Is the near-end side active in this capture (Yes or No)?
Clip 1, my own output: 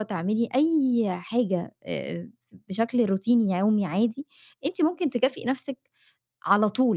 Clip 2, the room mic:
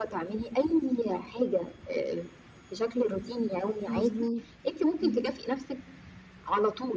Yes